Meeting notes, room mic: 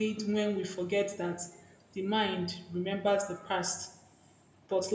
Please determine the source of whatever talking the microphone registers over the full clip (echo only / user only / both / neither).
user only